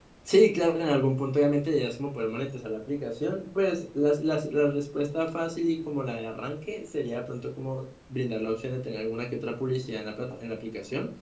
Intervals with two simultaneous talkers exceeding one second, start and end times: none

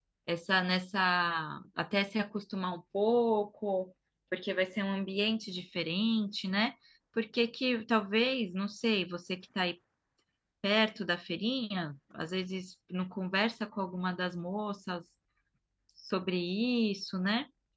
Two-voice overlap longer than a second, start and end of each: none

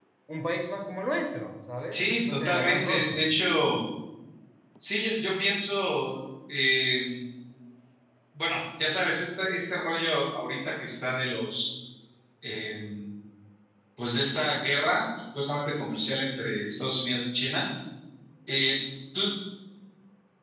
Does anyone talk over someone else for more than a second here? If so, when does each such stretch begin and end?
1.9-3.2

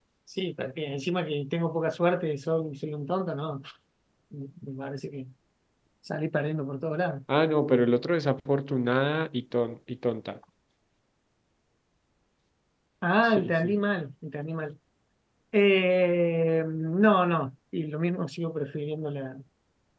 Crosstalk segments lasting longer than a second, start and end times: none

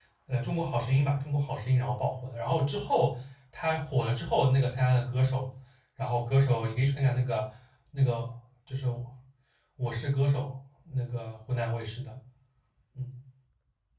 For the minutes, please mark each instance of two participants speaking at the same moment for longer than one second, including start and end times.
none

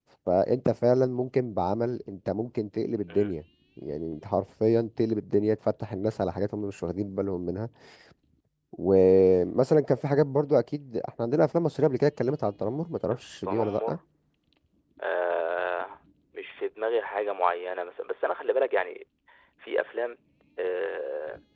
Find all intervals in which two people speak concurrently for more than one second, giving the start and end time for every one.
none

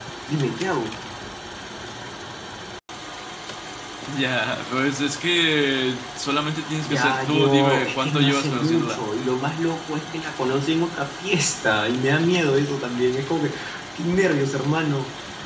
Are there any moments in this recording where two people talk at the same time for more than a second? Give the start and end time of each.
6.8-9.0

